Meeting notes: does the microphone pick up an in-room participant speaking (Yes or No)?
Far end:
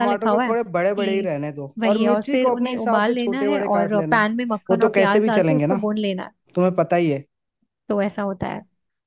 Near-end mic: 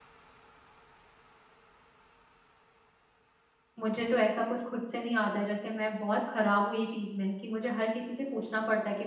Yes